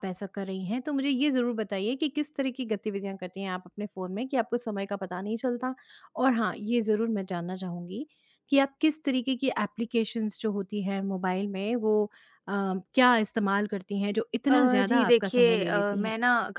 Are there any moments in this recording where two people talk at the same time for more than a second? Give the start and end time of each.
14.5-16.0

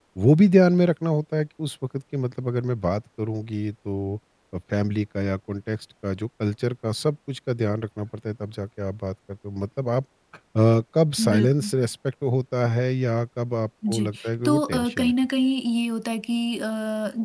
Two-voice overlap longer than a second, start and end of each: 13.9-15.1

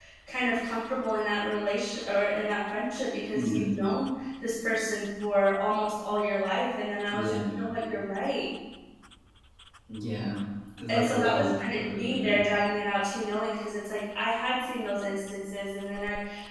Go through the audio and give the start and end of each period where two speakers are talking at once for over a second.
10.9-12.4

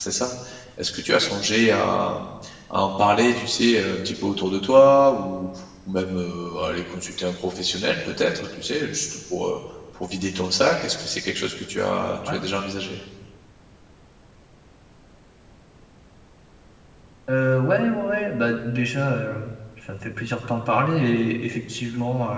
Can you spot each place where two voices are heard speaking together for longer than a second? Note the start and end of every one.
none

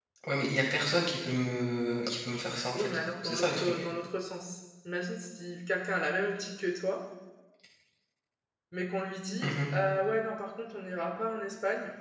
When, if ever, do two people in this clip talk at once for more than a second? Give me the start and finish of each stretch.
2.5-3.8

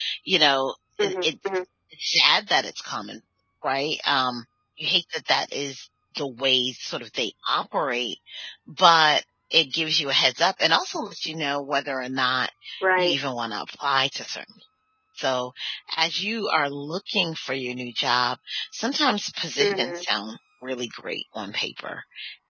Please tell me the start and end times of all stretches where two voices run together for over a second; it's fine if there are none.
none

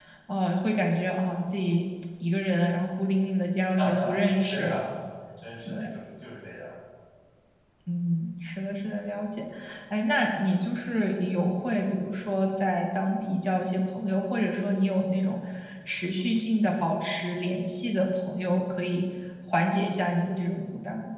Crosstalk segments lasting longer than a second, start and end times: none

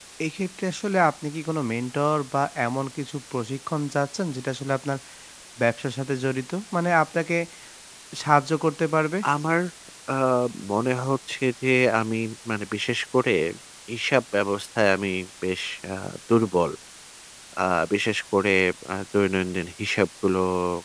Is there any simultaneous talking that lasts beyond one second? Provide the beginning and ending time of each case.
none

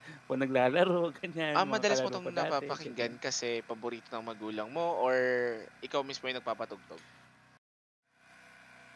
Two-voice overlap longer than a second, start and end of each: 1.6-3.1

